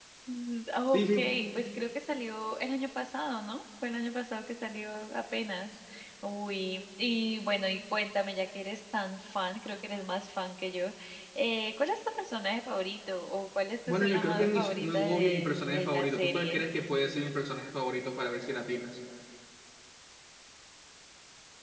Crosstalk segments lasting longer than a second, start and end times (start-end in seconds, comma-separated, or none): 13.9-16.6